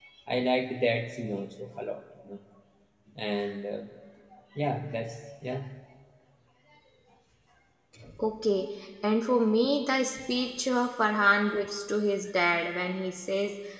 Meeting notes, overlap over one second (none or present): none